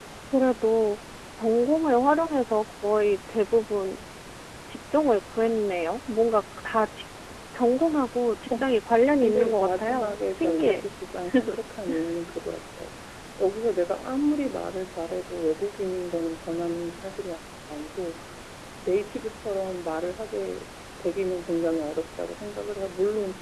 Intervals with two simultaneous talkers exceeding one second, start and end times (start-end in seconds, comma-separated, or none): 9.2-10.8